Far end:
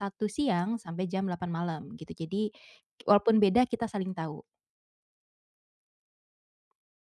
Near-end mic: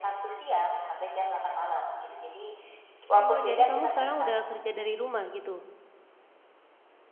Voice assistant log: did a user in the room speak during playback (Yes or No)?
Yes